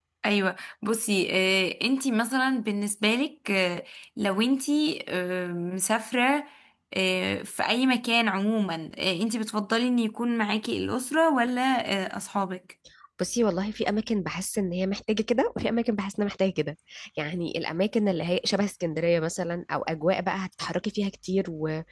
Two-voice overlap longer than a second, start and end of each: none

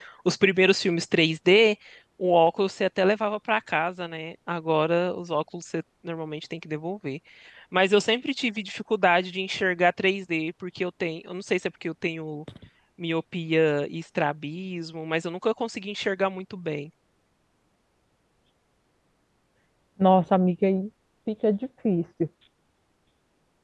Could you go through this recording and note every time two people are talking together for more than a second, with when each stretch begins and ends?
none

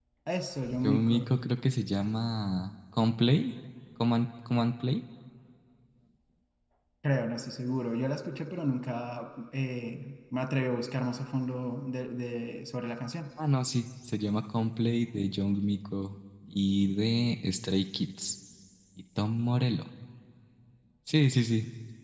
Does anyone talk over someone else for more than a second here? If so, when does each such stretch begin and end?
none

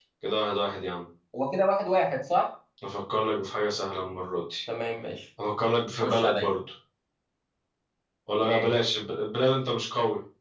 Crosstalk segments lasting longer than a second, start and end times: none

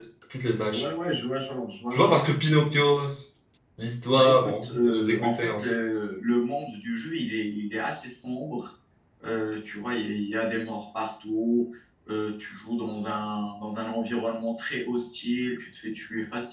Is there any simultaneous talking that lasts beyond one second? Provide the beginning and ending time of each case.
4.0-5.6

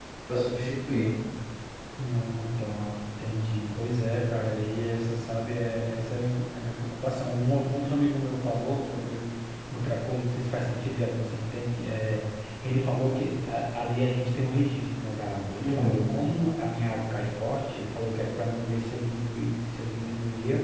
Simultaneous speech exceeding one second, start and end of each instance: none

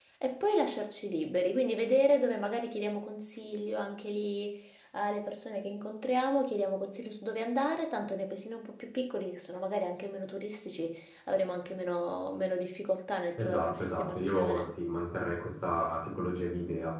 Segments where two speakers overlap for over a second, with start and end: 13.4-14.7

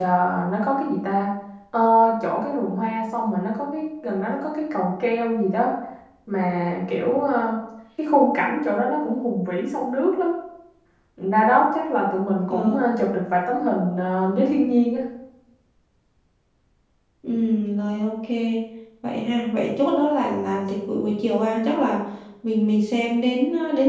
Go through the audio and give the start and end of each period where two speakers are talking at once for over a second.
none

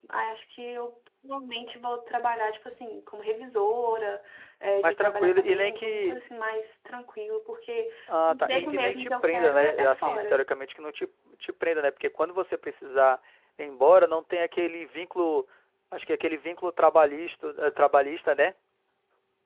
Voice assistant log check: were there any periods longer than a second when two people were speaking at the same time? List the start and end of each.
4.8-6.2, 8.3-10.4

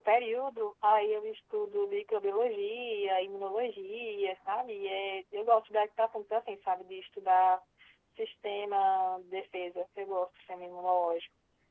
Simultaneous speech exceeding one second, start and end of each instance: none

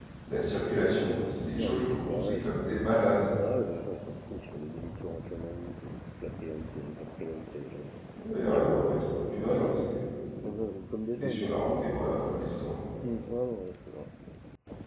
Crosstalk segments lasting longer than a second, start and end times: 1.6-2.9

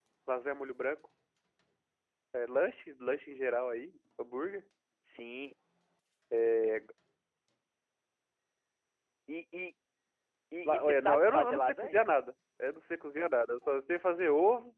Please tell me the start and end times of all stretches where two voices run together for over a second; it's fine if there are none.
10.7-12.1

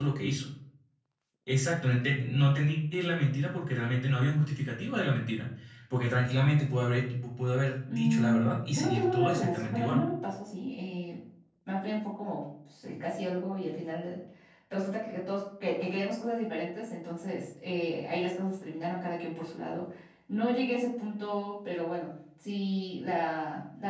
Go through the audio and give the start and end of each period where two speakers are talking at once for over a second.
7.9-10.1

